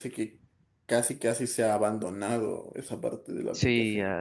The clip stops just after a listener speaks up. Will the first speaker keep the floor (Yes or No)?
No